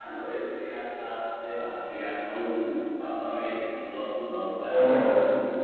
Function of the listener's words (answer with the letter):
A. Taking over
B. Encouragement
A